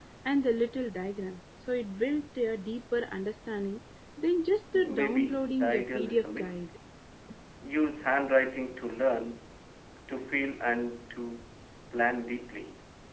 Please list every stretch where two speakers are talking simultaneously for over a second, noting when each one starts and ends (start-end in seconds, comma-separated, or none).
4.7-6.7